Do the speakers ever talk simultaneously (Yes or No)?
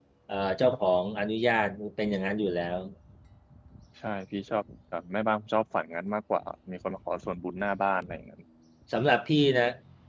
No